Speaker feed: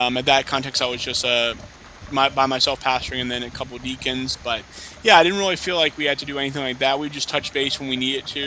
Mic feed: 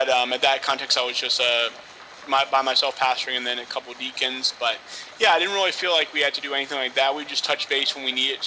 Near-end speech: none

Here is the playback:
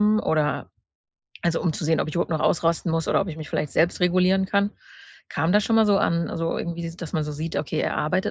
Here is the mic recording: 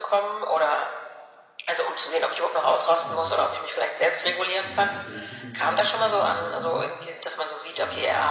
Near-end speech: present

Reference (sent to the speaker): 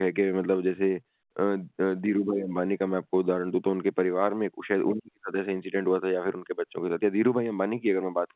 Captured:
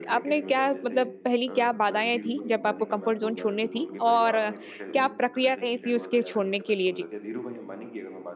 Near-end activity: present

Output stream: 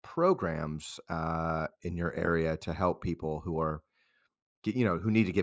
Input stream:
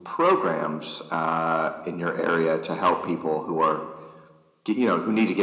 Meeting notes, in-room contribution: none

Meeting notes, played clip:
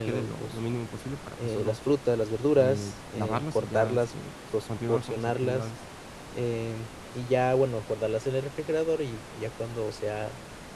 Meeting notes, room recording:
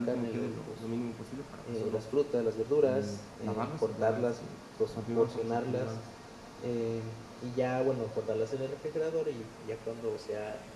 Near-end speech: none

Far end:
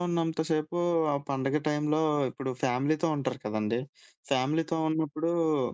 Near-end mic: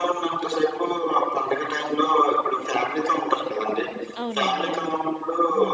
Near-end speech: present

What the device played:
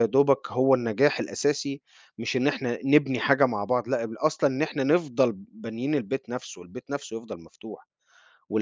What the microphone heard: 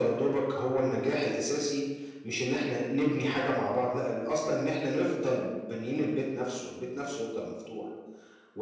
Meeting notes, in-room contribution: none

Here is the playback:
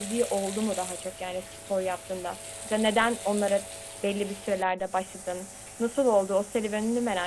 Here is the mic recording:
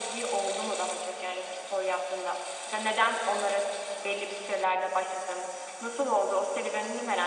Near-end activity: none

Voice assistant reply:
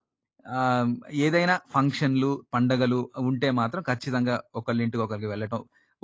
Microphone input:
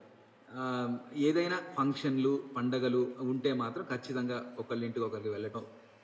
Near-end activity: none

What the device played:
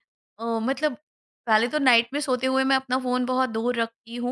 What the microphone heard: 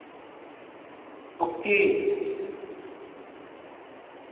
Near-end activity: present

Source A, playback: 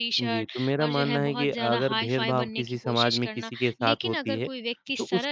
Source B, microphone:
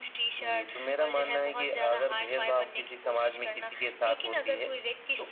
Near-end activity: none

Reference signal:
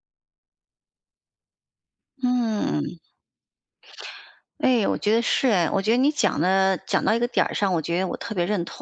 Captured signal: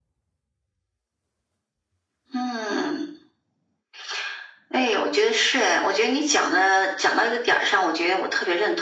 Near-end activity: none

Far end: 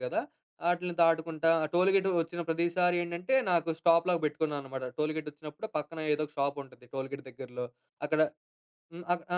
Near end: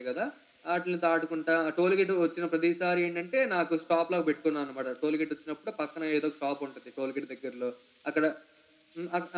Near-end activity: none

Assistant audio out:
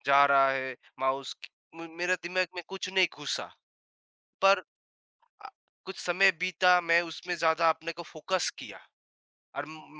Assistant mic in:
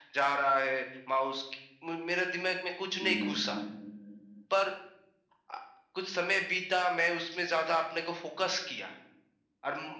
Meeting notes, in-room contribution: present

